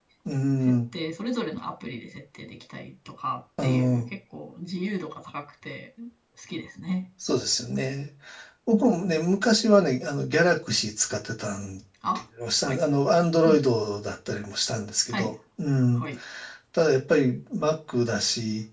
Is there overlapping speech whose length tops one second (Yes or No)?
No